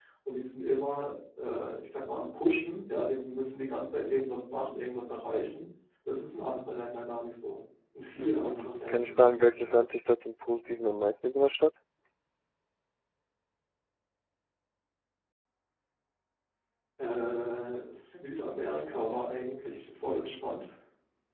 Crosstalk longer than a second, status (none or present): present